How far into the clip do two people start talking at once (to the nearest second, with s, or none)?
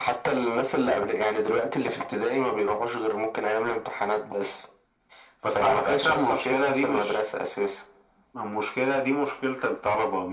5 s